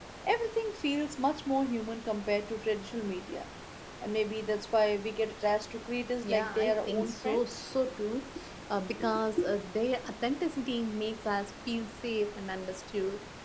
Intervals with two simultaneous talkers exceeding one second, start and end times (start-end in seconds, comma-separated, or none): 6.2-7.6